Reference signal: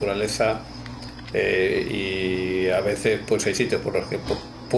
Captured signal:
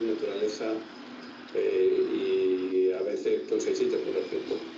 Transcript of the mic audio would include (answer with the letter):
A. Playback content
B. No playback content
A